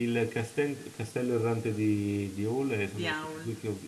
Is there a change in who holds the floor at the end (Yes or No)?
No